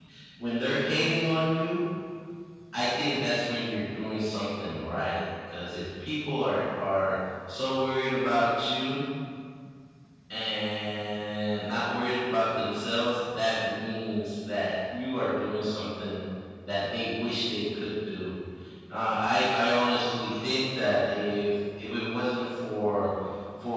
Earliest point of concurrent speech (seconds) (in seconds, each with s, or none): none